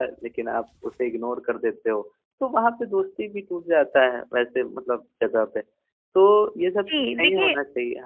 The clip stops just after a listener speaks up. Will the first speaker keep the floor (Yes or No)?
No